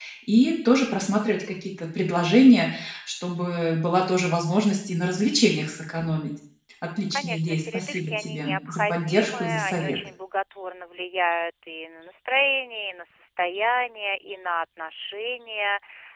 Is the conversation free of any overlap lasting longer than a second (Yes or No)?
No